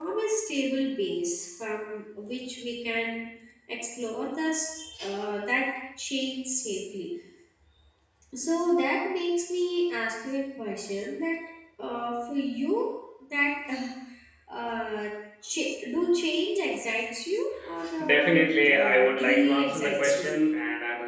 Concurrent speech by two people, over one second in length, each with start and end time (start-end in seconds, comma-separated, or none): 18.0-20.4